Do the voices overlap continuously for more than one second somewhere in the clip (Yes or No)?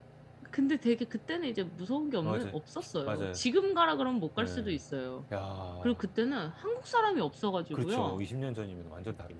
No